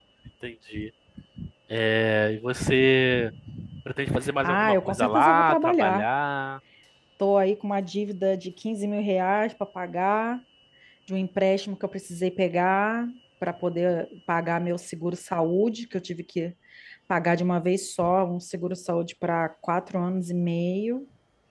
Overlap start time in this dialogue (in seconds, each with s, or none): 4.4 s